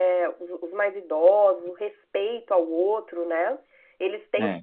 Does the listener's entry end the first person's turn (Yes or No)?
No